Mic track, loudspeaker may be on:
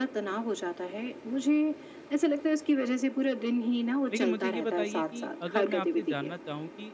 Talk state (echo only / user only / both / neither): both